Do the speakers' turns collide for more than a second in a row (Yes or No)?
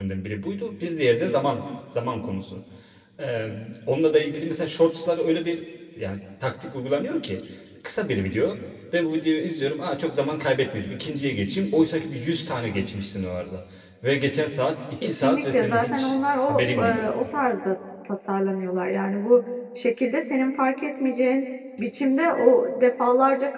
Yes